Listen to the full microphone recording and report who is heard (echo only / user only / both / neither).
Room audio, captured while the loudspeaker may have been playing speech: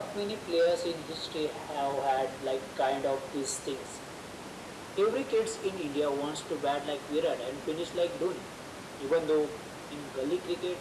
echo only